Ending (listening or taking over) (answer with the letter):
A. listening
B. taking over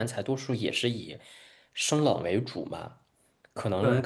A